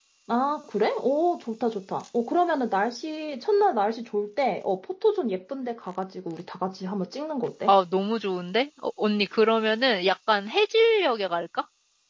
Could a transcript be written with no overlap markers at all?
Yes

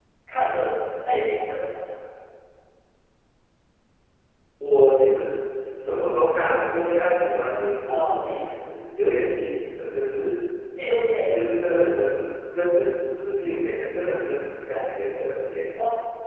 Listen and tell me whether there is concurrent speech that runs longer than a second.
No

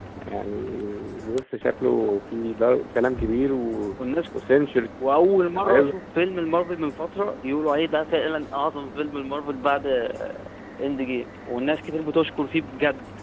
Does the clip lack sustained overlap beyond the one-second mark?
Yes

